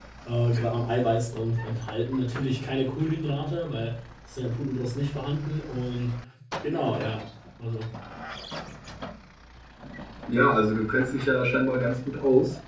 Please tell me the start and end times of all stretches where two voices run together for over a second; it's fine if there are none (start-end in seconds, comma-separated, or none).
none